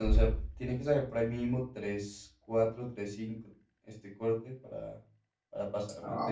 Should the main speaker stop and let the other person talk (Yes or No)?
Yes